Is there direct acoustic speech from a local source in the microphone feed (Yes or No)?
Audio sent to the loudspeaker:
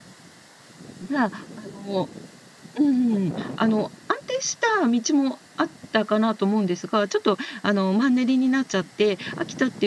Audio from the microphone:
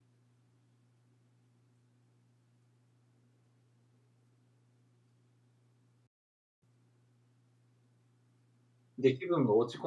Yes